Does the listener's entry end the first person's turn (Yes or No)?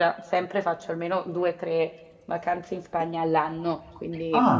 No